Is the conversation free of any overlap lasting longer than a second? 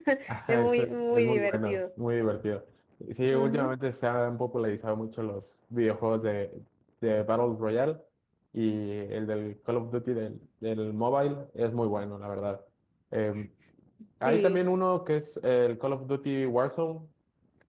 No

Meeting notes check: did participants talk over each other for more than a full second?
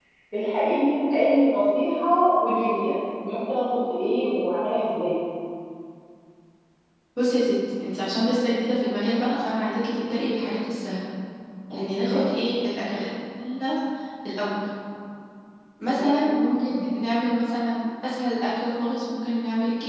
No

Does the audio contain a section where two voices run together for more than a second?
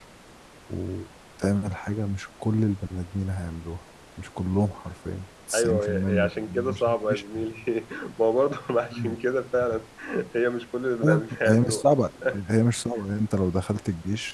Yes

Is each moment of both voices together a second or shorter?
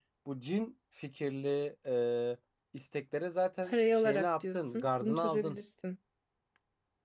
No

